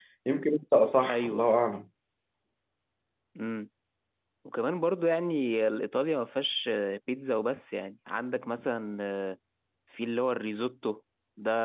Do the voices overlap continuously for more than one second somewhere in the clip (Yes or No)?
No